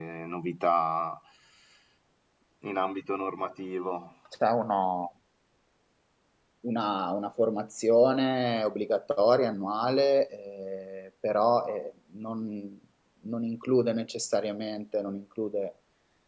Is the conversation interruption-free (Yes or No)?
Yes